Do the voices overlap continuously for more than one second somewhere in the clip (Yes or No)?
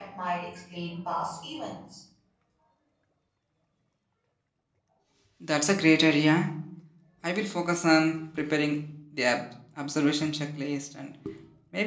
No